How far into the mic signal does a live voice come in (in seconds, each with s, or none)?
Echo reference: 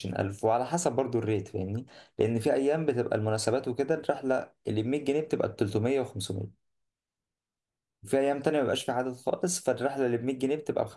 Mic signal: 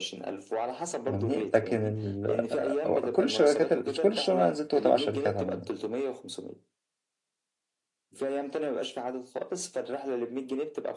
1.0 s